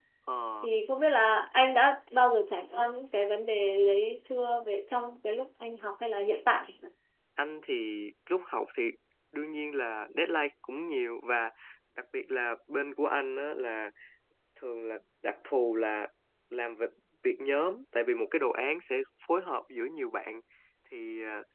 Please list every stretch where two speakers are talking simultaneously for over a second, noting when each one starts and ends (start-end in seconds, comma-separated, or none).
none